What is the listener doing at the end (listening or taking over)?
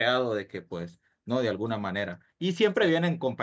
listening